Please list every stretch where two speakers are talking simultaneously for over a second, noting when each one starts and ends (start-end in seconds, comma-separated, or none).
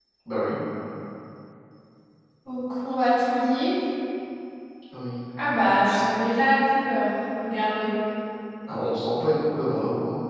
none